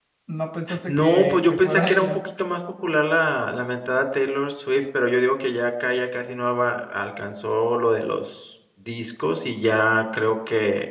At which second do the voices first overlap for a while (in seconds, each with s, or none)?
0.9 s